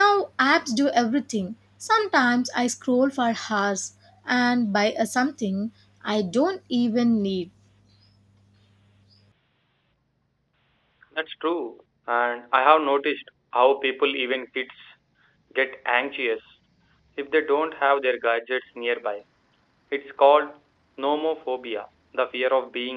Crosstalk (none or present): none